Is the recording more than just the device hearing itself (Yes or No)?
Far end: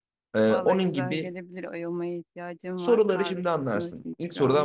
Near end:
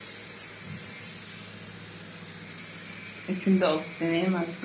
Yes